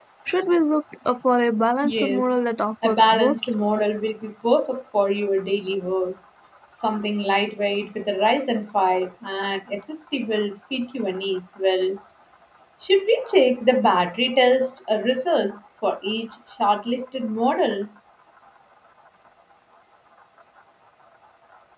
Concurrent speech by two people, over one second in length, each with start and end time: none

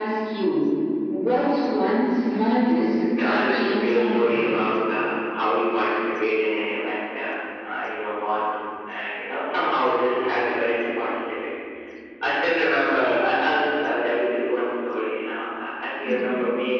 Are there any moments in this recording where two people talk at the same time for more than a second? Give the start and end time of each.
3.2-4.6

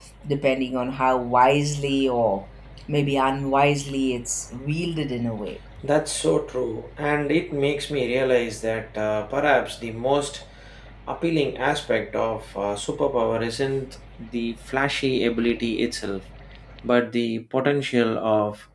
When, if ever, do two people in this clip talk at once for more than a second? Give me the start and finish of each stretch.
none

